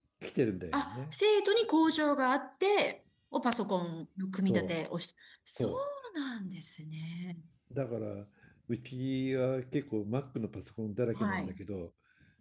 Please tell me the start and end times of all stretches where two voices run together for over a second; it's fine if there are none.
none

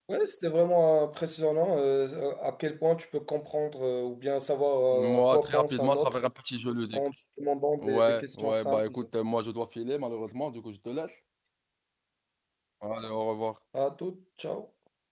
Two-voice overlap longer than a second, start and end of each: 4.9-6.2, 7.8-9.1

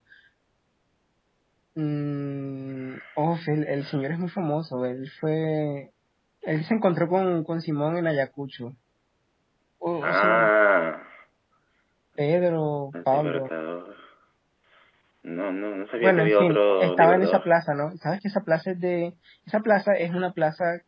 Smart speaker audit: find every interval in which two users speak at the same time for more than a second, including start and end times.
16.0-17.5

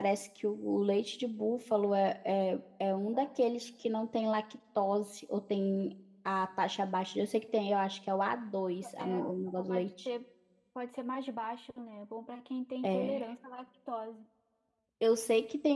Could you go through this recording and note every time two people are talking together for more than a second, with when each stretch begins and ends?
none

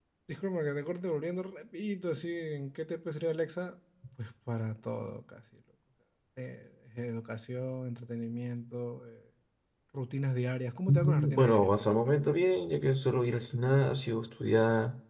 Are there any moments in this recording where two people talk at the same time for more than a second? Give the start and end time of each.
10.9-12.1

